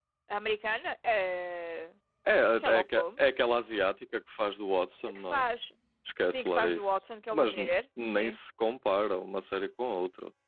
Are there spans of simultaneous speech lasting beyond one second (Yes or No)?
Yes